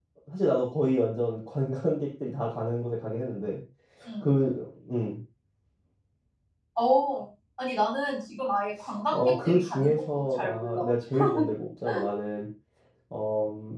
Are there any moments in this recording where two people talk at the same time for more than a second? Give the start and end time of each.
9.1-10.8

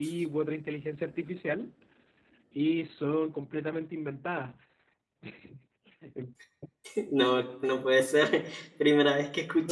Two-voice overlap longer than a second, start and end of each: none

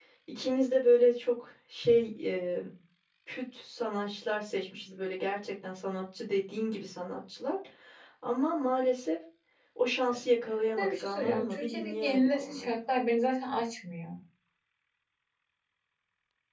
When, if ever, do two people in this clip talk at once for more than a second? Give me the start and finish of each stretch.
10.8-12.8

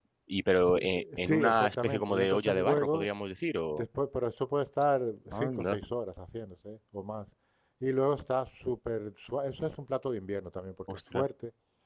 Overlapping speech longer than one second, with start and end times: 0.6-3.1

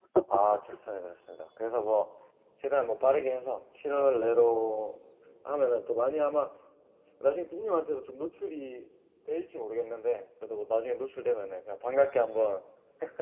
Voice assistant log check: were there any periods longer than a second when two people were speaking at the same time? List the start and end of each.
none

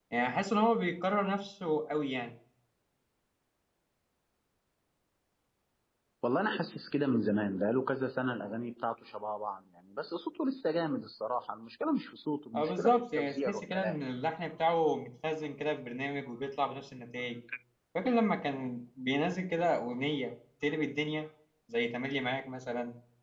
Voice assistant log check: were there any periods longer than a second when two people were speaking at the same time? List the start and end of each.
12.6-14.0

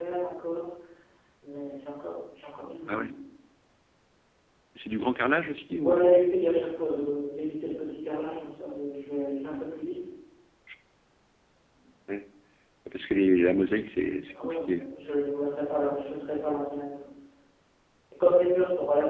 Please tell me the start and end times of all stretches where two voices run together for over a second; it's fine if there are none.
none

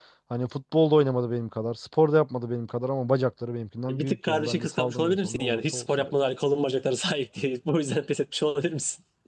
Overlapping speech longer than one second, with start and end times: 3.9-6.1

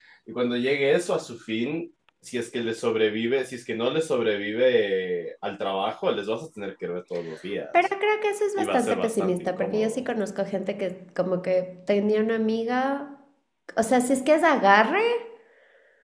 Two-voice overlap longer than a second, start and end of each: 8.6-10.0

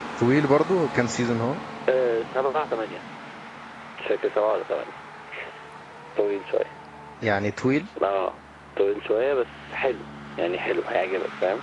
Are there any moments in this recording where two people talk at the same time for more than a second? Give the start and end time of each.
none

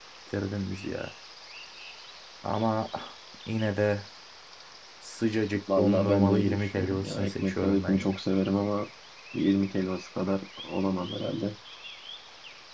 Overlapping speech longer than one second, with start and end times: 5.8-8.2

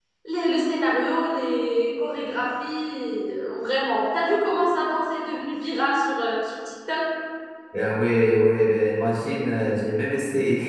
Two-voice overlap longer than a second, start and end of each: none

